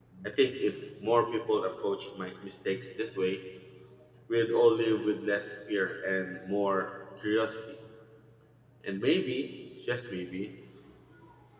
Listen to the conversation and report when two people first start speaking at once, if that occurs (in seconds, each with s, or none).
none